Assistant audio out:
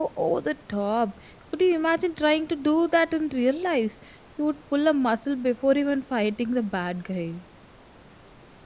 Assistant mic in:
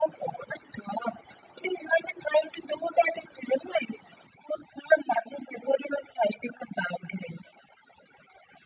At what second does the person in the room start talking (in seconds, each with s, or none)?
none